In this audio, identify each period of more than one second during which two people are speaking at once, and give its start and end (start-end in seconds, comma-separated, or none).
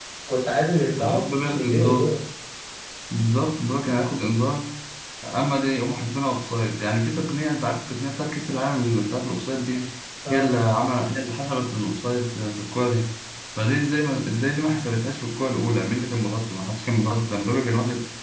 1.0-2.2